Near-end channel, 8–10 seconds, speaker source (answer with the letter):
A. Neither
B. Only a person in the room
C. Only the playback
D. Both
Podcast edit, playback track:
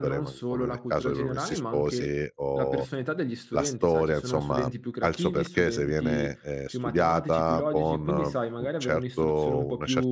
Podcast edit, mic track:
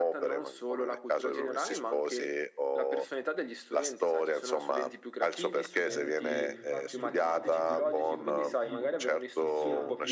D